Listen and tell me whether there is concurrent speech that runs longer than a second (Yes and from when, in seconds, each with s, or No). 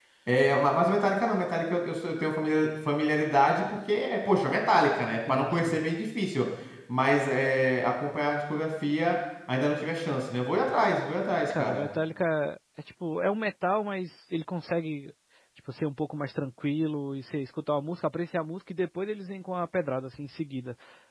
No